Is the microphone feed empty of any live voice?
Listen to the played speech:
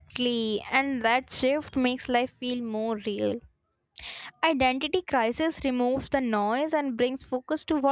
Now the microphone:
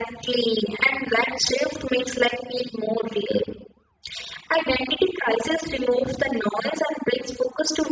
Yes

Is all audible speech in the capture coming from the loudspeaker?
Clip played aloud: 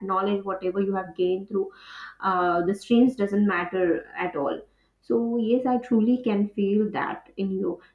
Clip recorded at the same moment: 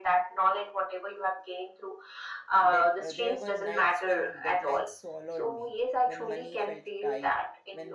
No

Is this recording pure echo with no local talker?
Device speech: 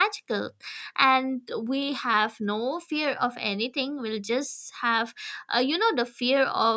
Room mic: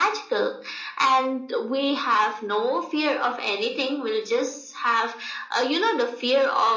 Yes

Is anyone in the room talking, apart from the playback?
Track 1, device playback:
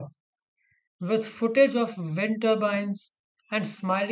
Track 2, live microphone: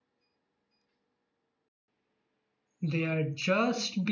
Yes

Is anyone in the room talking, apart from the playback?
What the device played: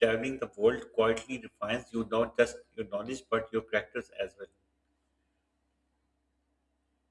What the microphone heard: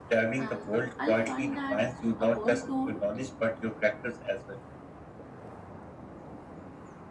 Yes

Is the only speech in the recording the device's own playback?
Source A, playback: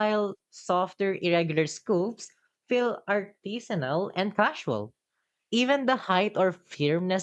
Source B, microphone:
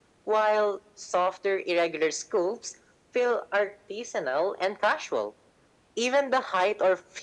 Yes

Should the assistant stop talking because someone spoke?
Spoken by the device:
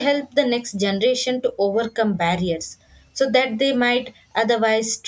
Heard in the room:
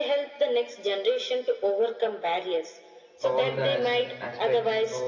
Yes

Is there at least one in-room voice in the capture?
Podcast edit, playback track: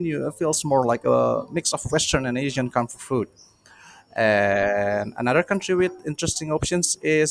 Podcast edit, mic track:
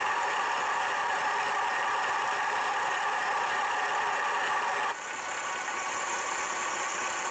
No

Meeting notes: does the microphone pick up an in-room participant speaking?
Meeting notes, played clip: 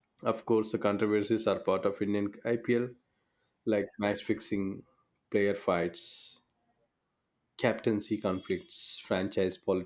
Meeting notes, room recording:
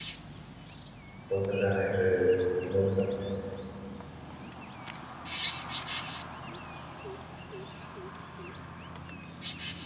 Yes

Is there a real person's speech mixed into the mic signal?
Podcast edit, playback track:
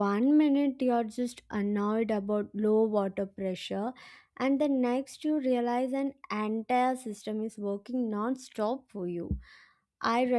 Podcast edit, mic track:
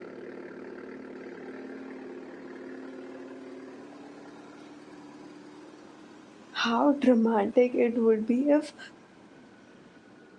Yes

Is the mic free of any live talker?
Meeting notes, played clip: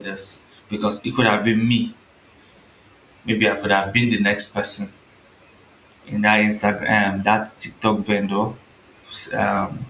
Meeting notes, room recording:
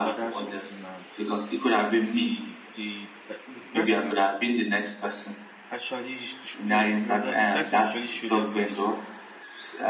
No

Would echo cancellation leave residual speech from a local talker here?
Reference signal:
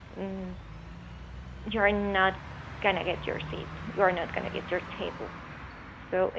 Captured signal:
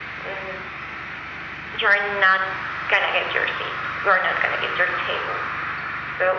No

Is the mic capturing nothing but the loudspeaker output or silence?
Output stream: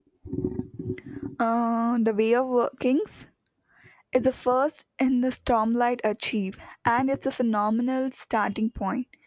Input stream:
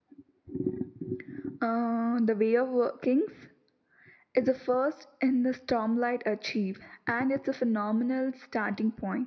Yes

